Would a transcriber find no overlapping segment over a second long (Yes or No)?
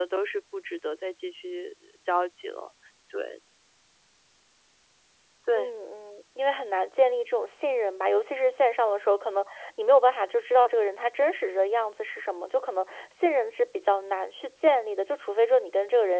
Yes